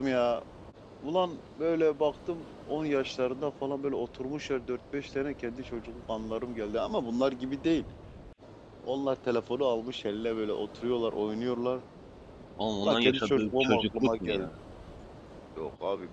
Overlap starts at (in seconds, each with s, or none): 12.8 s